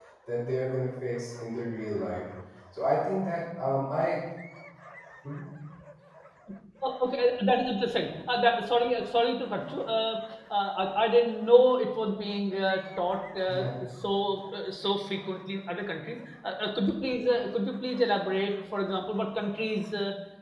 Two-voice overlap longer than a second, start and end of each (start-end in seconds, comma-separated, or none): none